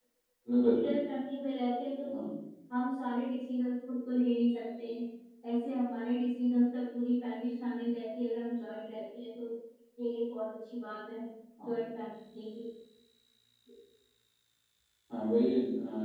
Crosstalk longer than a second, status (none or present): none